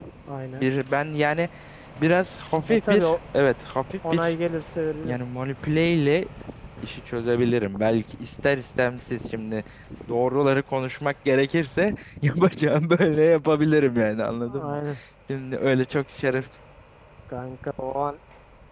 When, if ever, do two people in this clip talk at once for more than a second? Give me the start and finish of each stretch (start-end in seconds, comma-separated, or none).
none